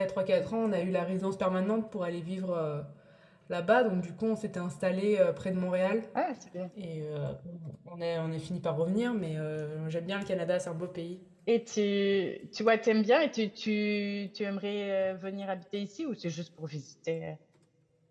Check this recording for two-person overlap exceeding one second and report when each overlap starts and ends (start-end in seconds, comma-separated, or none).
none